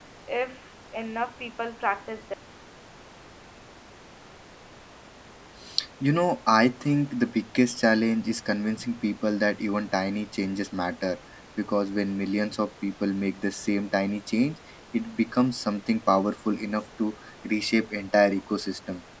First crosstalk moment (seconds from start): none

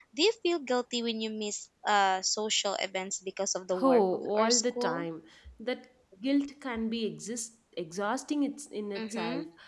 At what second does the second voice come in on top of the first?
3.8 s

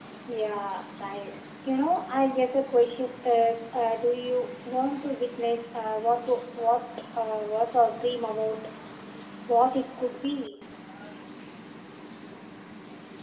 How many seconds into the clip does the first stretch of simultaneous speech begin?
none

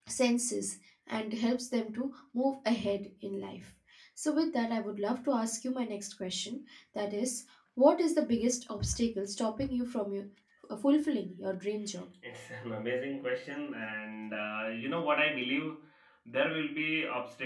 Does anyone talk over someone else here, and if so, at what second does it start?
none

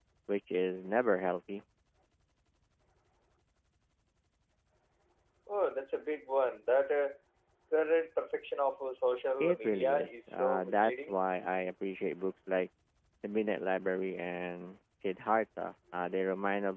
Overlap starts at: 9.4 s

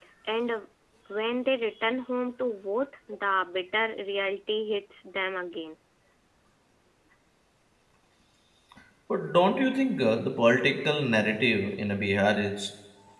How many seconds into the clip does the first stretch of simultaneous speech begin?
none

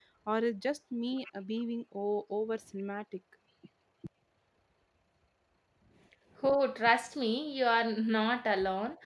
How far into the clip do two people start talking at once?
none

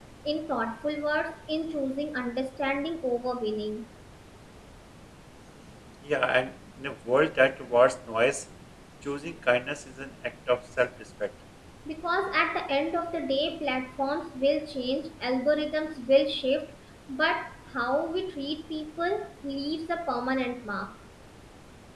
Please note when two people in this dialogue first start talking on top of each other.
none

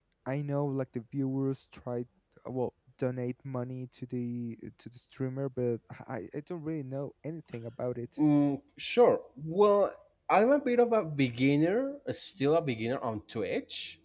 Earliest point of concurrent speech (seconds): none

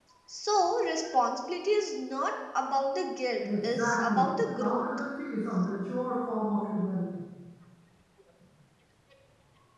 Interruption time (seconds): 3.4 s

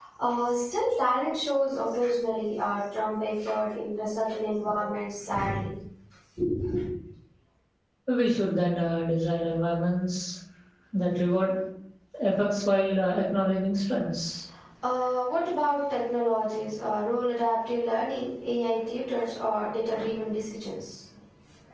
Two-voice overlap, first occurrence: none

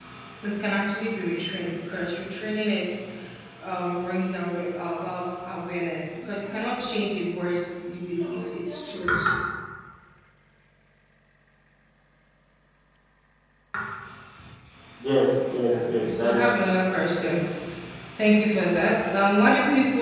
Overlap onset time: 15.5 s

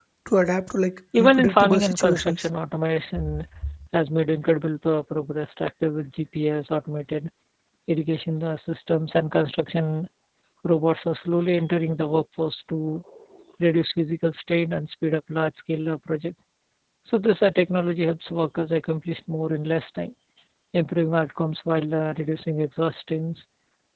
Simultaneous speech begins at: 1.2 s

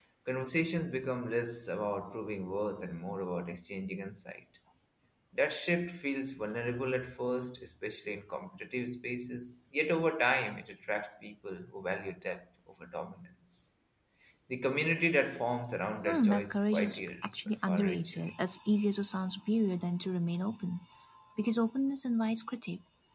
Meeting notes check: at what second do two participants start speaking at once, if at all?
16.0 s

